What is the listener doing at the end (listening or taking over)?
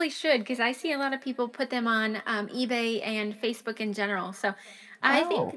listening